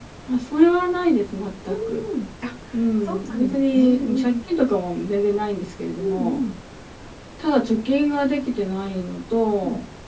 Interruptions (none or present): present